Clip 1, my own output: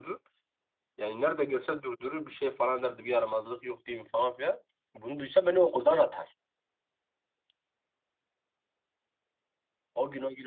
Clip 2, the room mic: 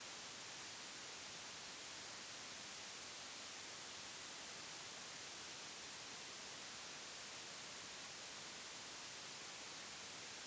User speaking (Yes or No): No